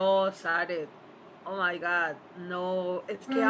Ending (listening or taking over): listening